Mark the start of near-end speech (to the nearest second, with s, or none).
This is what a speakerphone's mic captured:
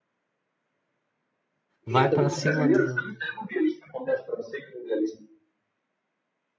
2 s